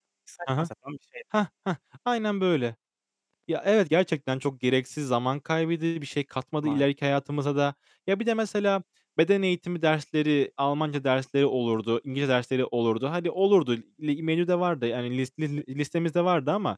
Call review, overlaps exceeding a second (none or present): none